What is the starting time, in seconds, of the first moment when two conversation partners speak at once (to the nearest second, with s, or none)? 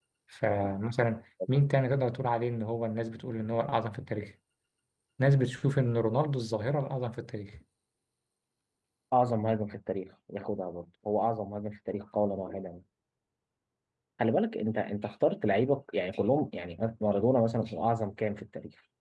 none